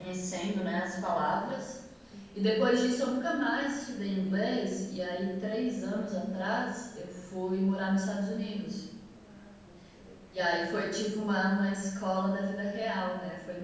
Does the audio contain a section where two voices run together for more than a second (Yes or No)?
No